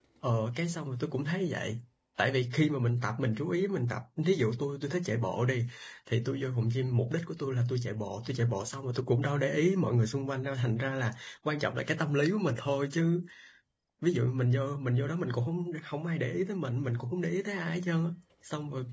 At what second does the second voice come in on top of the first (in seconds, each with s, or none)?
none